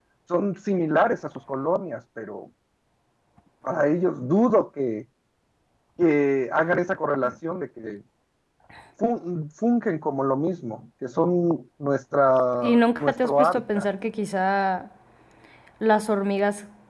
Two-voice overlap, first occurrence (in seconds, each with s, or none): 12.6 s